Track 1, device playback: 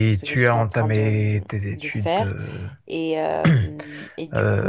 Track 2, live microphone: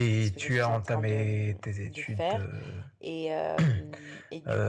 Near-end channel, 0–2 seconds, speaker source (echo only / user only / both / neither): echo only